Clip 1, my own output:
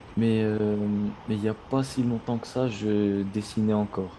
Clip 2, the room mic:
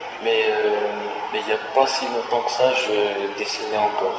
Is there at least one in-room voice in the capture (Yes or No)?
No